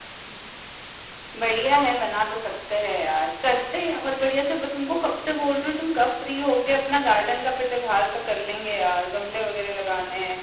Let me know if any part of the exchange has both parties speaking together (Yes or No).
No